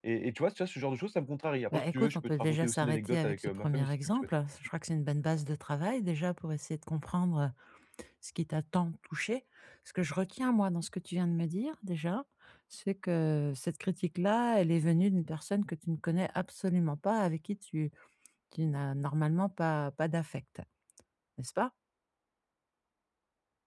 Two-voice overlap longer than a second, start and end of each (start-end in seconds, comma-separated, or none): 1.7-4.3